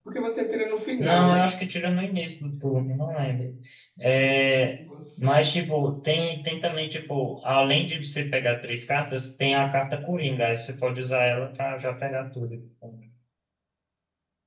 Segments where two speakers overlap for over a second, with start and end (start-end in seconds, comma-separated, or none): none